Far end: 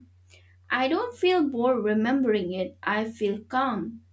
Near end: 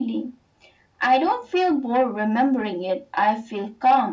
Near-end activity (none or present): none